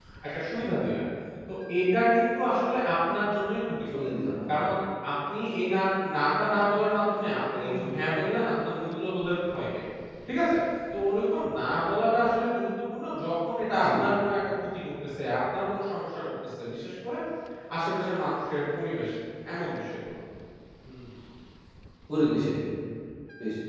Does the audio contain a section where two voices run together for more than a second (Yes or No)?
No